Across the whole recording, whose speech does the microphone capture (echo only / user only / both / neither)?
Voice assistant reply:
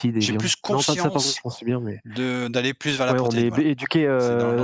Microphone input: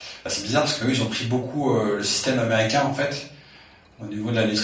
user only